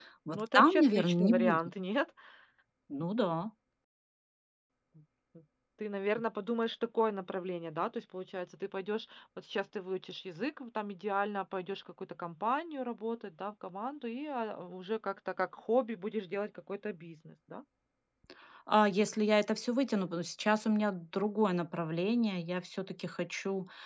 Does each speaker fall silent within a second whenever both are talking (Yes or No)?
No